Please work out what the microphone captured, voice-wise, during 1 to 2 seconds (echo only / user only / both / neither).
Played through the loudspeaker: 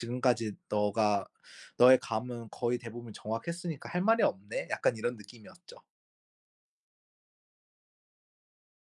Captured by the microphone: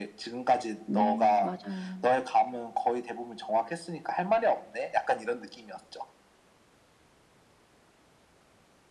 both